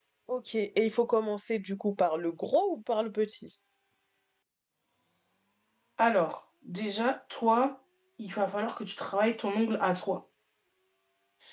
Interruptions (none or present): none